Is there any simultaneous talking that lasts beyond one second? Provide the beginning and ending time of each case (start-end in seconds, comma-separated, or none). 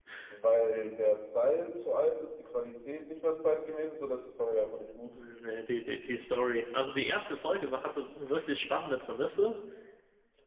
none